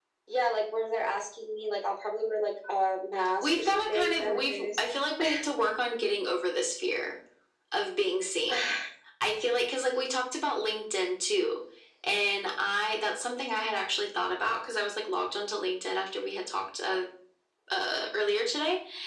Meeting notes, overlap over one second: present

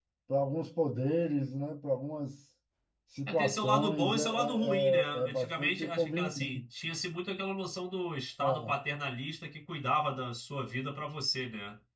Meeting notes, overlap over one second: present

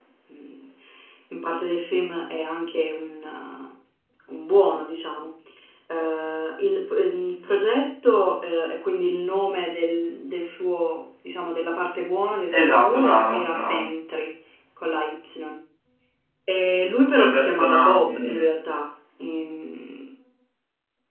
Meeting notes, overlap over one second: present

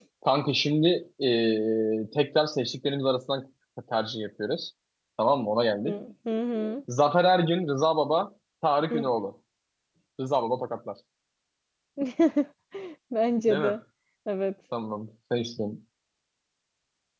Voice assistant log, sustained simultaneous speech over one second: none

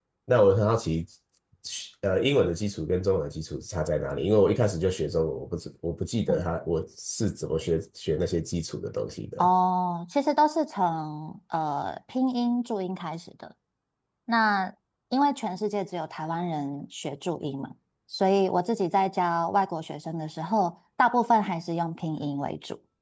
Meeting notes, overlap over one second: none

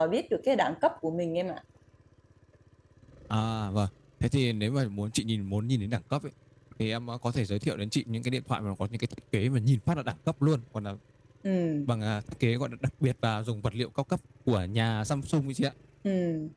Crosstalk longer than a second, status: none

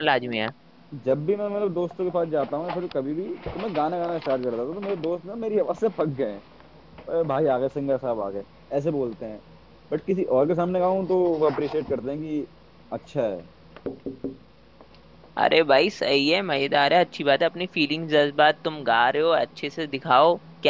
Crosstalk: none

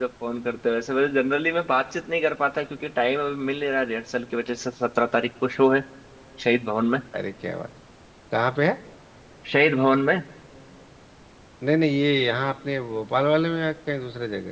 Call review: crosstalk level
none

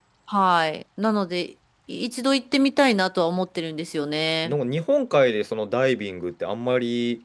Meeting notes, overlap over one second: none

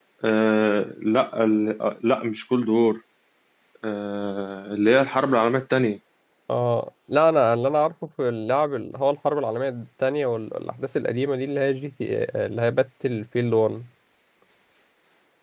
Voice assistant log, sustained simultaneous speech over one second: none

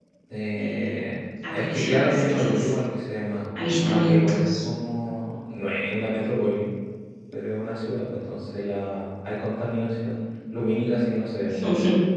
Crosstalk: present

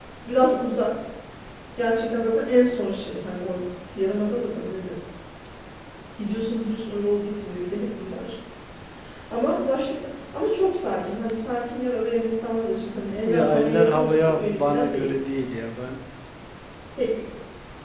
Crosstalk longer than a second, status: present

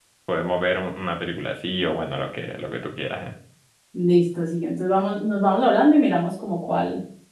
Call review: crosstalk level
none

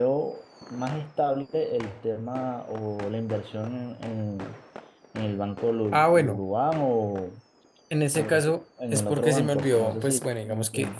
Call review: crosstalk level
present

